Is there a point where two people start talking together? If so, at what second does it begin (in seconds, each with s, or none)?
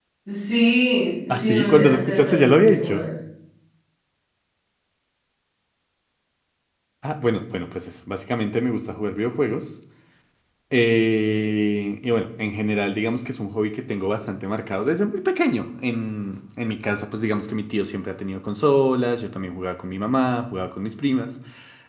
1.3 s